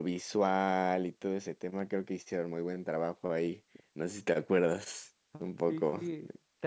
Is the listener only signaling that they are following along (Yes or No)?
No